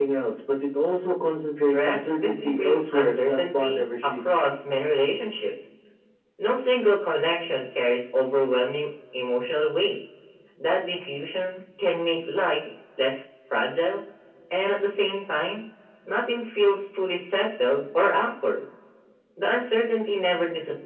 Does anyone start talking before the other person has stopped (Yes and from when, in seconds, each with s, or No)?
Yes, from 1.7 s